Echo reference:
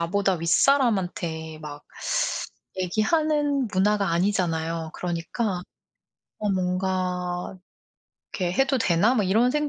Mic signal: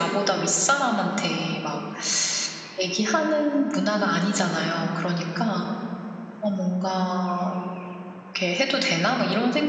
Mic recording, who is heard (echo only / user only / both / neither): echo only